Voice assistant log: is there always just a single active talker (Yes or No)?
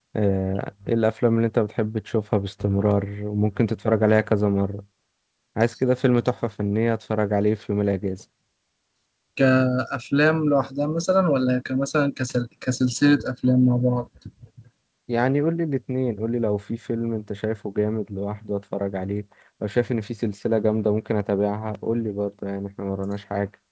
Yes